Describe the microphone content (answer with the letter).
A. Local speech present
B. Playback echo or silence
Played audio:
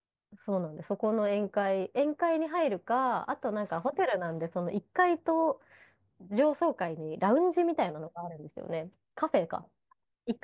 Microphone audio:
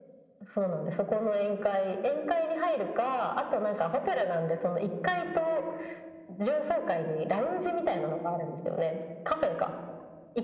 B